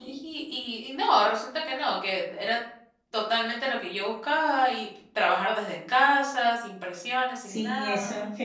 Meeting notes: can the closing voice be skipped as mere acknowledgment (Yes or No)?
No